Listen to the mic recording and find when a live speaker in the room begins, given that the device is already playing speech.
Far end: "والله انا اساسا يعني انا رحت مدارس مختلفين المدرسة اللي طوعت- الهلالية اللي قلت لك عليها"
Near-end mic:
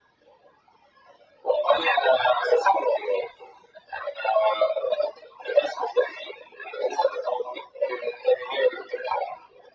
none

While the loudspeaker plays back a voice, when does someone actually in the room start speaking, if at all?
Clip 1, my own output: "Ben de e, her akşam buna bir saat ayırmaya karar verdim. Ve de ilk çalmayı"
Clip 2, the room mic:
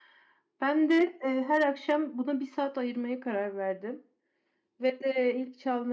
none

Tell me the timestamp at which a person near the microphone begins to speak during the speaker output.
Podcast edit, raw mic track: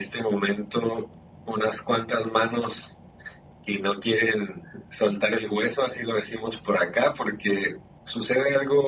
none

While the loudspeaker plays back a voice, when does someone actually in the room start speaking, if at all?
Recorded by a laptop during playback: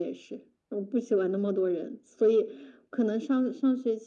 none

